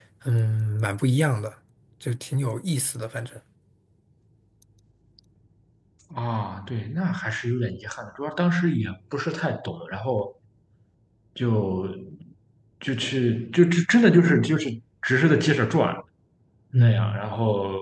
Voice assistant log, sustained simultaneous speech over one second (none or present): none